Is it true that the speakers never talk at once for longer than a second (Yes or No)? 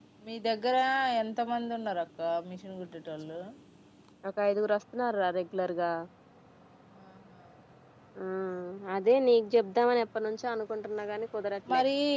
Yes